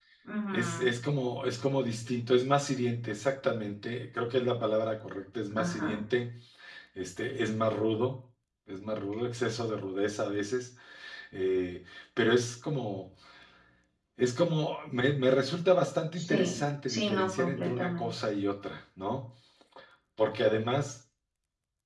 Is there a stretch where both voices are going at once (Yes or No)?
Yes